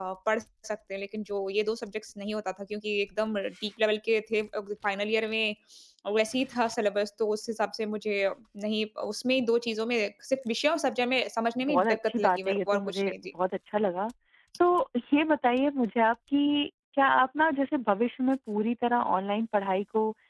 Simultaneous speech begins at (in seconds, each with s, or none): 11.6 s